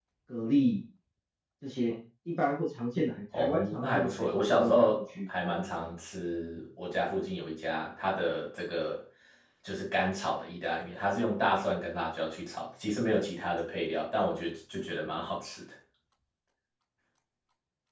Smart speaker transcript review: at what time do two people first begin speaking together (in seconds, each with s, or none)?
3.3 s